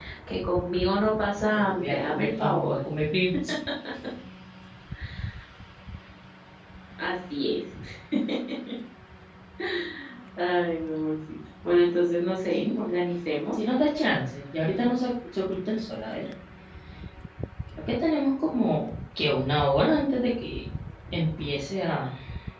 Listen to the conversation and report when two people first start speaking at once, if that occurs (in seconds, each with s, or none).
1.5 s